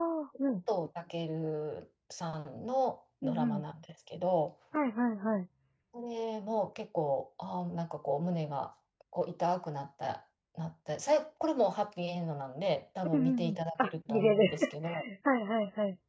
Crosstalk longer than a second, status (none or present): present